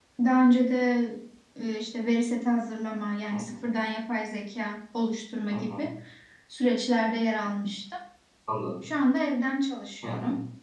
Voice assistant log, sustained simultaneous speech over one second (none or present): none